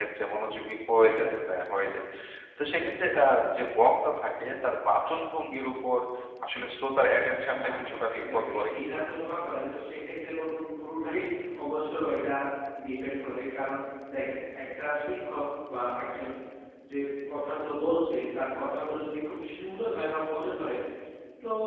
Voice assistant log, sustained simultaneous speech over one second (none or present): present